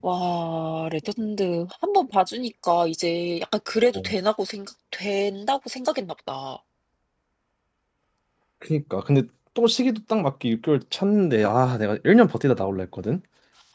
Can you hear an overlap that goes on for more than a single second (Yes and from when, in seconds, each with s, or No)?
No